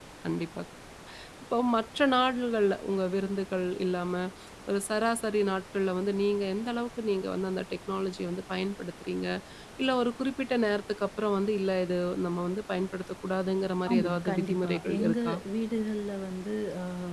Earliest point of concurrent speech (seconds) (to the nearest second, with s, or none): 14 s